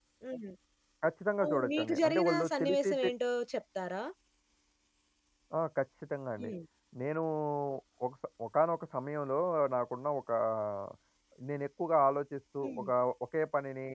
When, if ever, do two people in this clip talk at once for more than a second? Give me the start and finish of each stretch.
1.5-3.1

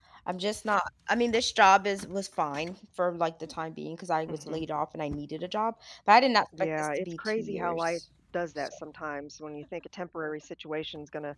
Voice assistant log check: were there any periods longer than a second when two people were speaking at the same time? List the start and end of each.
6.8-8.0

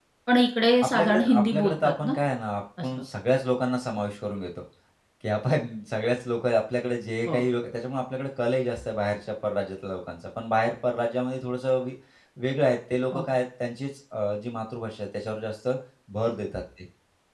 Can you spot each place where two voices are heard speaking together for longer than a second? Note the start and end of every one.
0.8-2.1

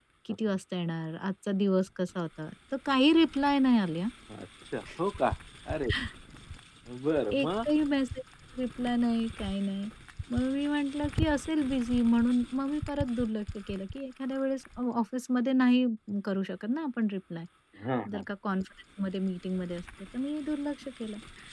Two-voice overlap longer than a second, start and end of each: none

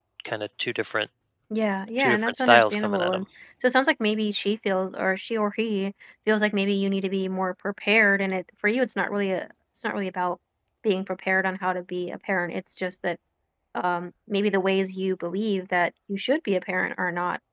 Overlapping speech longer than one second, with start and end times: 2.0-3.2

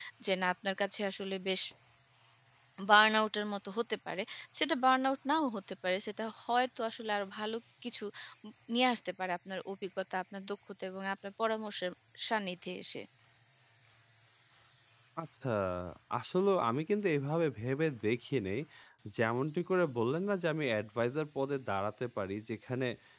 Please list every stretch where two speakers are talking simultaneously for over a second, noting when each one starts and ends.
none

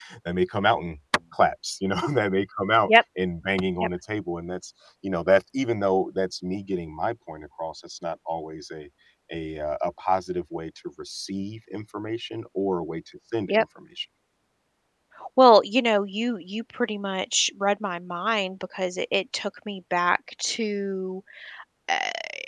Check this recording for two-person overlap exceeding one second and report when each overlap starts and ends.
none

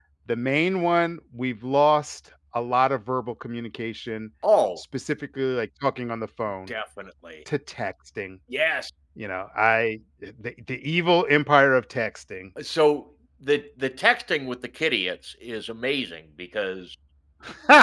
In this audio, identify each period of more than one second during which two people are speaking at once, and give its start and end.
none

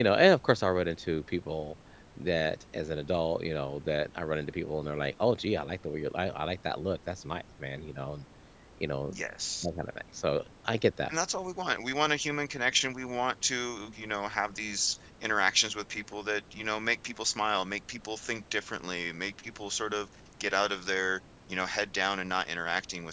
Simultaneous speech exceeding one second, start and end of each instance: none

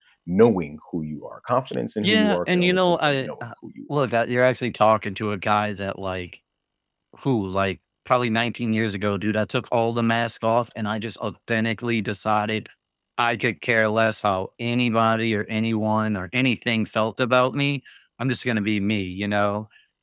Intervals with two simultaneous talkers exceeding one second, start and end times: 2.0-3.3

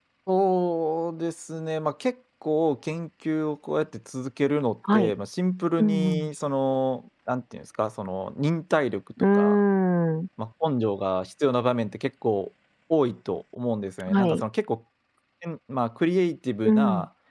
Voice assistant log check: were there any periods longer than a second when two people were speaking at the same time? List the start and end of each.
none

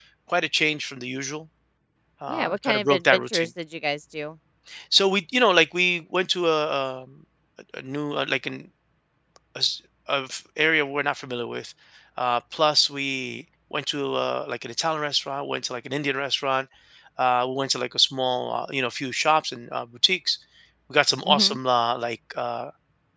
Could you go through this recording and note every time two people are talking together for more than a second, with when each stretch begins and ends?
2.3-3.5

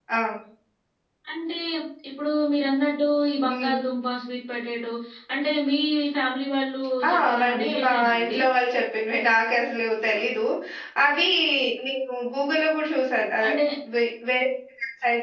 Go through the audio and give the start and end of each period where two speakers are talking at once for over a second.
7.1-8.4

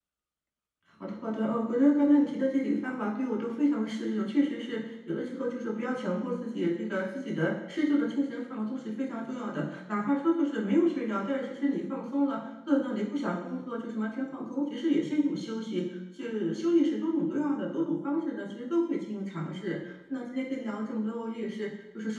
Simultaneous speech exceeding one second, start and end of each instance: none

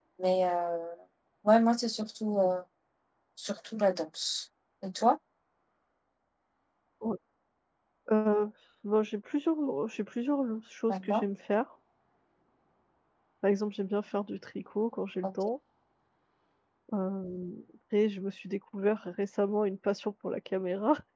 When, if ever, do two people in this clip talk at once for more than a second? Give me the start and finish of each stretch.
none

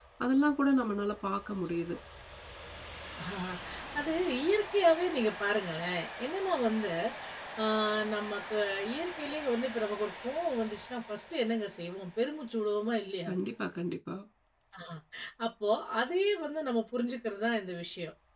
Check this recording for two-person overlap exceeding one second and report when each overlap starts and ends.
none

